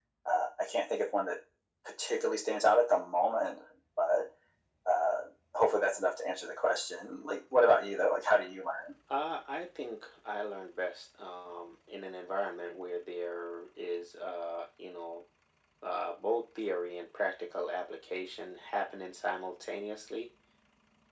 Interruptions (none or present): none